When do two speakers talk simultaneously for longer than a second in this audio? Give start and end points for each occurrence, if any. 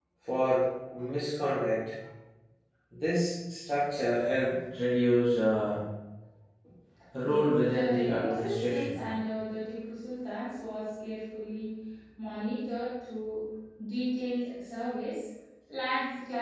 7.2-9.0

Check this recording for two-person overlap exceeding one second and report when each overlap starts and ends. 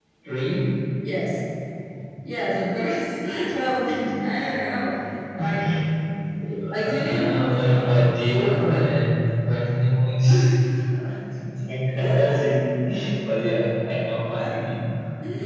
6.8-8.8

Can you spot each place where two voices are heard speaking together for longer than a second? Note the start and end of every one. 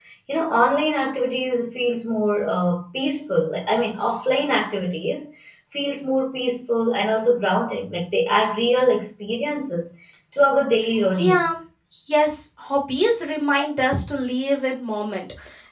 none

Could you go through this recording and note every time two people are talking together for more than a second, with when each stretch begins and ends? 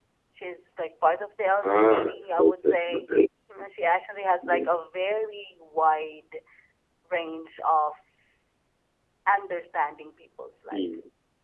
1.6-3.1

